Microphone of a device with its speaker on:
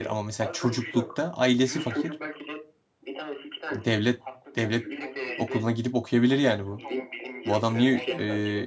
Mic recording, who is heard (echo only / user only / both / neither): both